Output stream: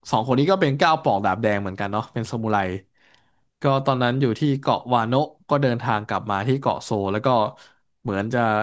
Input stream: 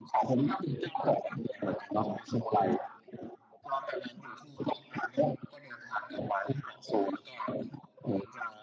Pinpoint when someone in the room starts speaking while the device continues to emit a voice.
none

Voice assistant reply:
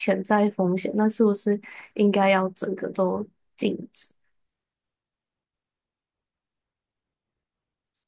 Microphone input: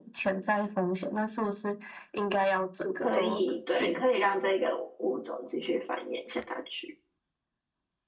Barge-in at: 3 s

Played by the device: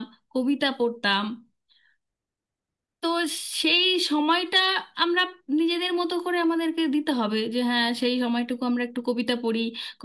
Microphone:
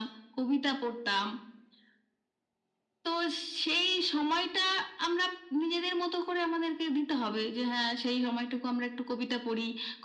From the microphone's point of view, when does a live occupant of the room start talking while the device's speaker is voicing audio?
none

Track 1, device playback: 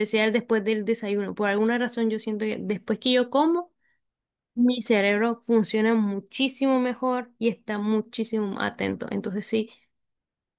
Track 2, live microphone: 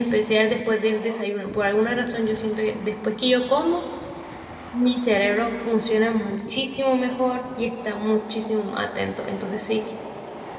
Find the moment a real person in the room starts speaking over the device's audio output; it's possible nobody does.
none

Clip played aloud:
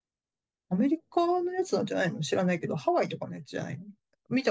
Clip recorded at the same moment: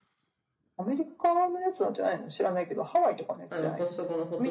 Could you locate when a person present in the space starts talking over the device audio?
4 s

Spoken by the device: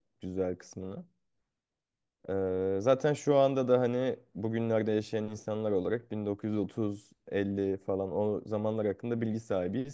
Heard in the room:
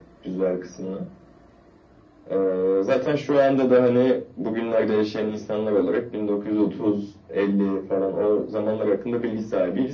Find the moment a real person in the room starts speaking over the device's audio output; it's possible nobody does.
none

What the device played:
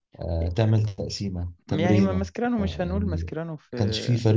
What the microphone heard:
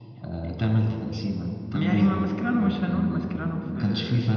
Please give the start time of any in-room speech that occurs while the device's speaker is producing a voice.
none

